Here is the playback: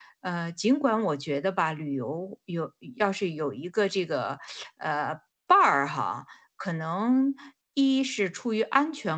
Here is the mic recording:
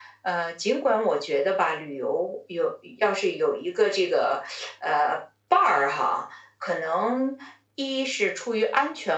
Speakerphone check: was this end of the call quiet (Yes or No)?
Yes